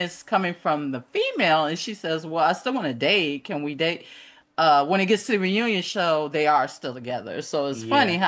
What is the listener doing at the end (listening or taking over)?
listening